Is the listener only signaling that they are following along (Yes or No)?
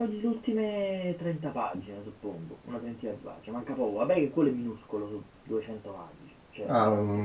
No